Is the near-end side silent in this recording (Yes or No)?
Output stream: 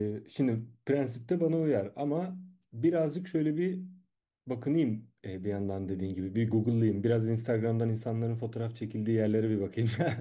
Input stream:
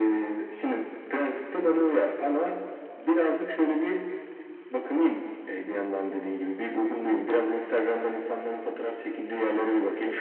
Yes